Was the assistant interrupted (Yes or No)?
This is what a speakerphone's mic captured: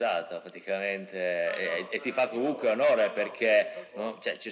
Yes